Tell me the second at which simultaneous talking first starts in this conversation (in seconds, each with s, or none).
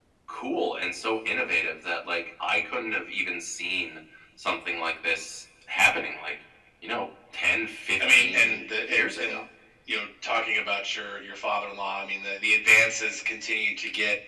8.0 s